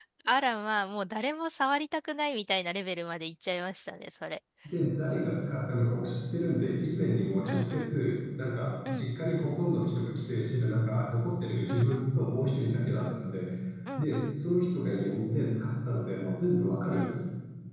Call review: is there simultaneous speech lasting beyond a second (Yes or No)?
No